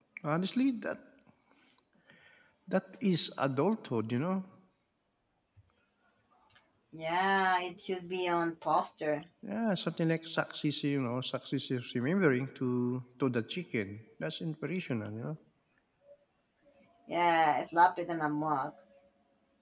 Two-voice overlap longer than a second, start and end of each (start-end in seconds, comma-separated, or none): none